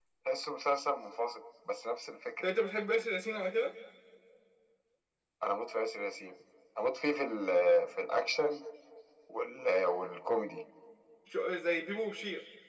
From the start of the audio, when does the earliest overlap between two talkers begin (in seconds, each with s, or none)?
none